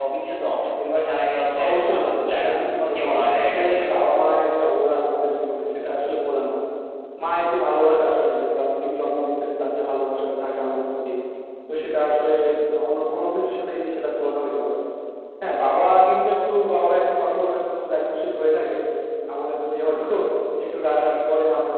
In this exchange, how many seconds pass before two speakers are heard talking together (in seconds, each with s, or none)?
1.5 s